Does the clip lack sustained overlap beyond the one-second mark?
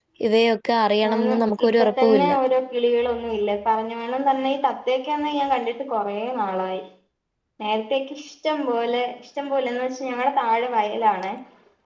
No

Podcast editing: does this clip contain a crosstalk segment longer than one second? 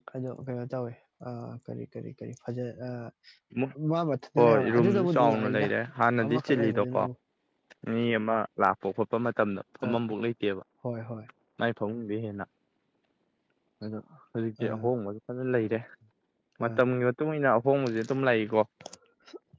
Yes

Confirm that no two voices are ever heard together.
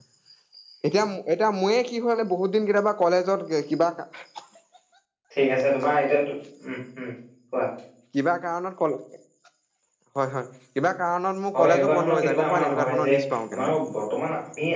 No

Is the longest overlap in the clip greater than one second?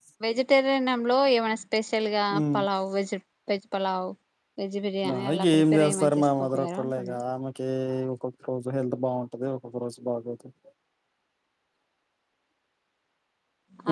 Yes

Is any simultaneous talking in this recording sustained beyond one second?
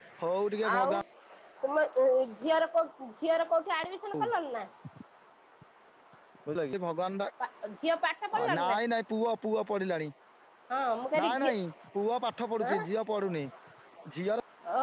No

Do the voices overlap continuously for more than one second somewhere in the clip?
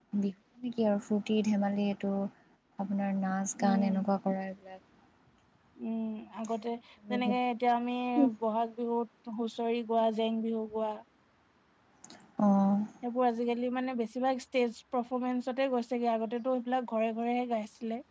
No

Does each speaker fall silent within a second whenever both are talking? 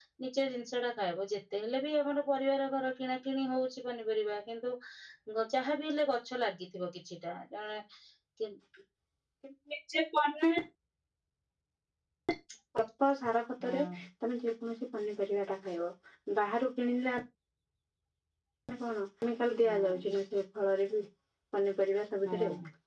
Yes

